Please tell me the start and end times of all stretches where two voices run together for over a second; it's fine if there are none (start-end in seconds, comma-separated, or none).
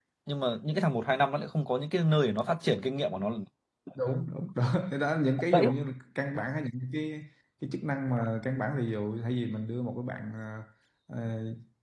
none